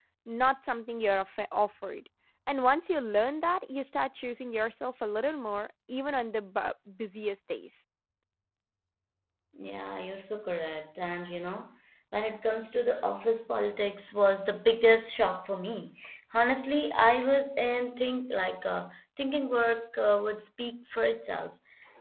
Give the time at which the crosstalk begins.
none

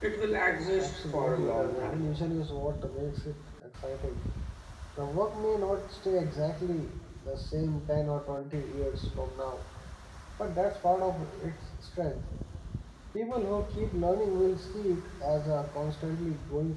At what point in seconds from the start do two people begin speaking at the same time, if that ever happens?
0.8 s

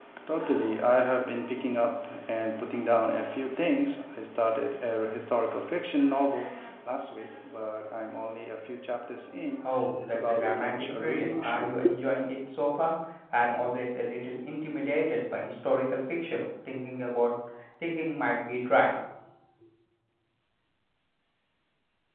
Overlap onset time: 9.6 s

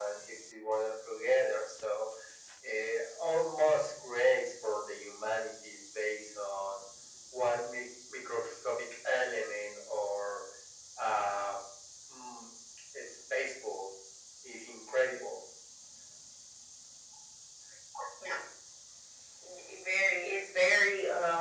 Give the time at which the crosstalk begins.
none

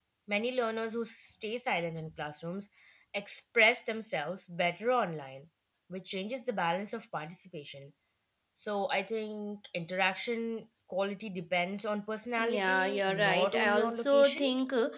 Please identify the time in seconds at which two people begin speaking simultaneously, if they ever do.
12.4 s

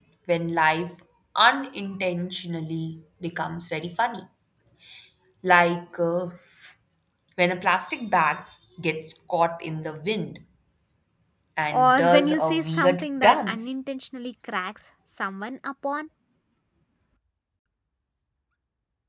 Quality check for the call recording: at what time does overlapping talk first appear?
11.7 s

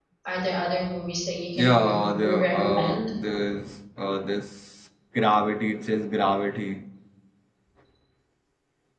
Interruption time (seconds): 1.6 s

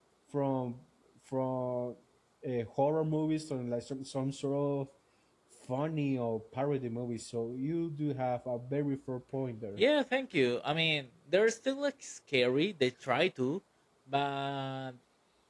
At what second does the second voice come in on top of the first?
none

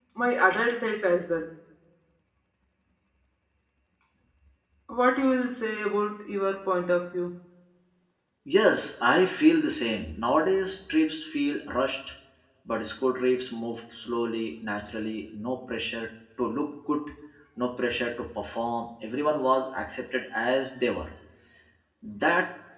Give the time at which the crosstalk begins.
none

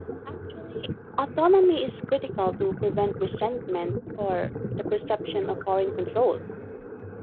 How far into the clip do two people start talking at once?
none

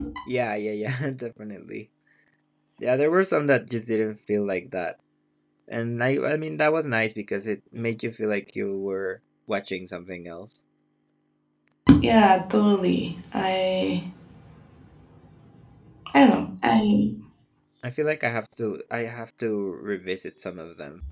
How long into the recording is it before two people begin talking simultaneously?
none

